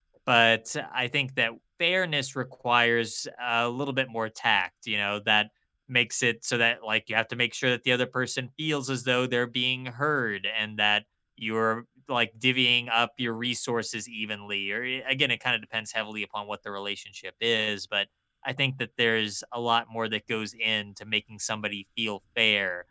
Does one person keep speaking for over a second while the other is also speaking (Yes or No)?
No